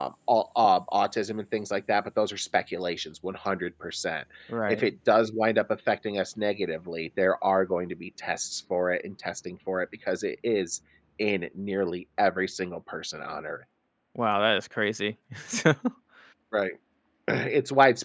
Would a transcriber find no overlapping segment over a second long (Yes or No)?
Yes